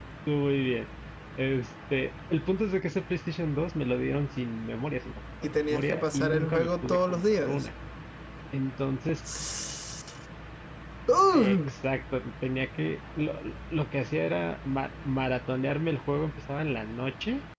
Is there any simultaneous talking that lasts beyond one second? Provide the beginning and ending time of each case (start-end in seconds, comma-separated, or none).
5.4-7.7